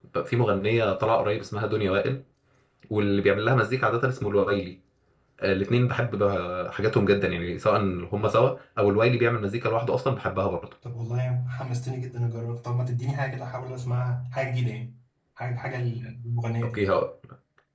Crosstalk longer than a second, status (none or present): none